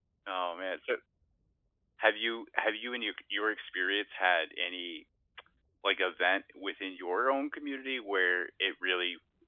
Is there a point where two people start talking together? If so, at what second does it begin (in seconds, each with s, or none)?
none